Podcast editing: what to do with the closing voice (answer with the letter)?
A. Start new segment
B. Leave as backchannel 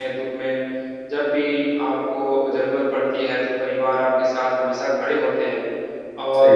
B